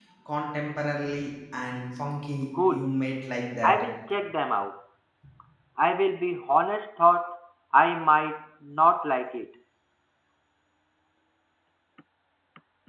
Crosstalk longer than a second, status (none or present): none